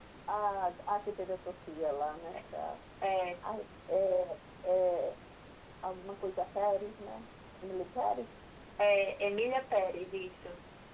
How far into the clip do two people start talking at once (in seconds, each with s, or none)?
none